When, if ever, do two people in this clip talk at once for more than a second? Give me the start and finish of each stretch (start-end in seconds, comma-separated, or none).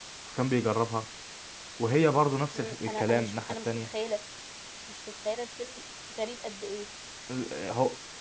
2.5-3.9